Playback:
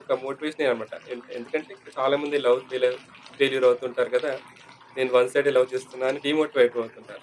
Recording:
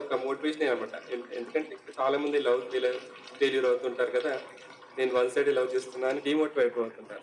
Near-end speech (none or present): none